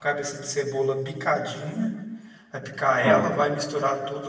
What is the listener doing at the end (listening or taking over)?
listening